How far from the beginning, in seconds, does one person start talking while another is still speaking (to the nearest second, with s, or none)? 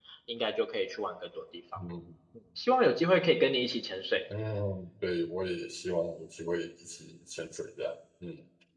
none